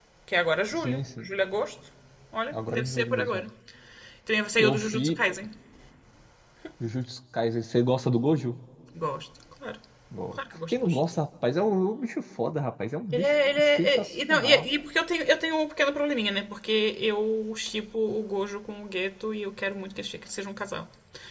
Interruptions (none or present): present